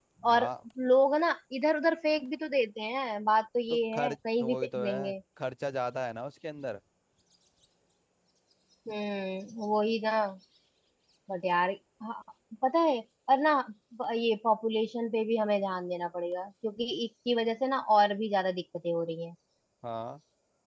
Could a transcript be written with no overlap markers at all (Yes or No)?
No